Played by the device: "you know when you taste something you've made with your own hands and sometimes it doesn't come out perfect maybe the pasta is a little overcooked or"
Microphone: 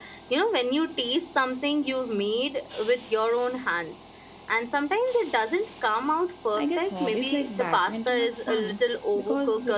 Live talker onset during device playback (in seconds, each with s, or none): 6.5 s